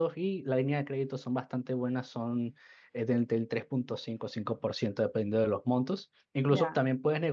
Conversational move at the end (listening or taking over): listening